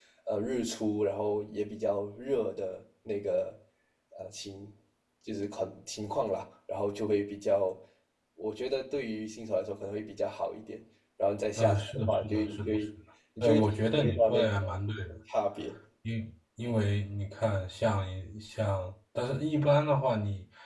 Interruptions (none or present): present